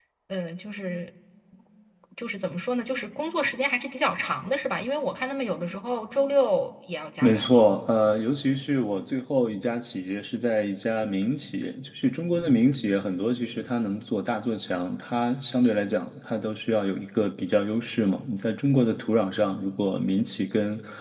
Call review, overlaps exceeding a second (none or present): none